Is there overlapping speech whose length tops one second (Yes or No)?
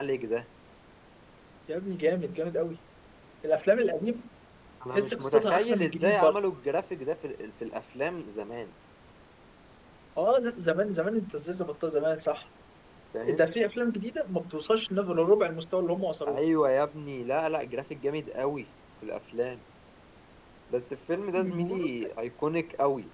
Yes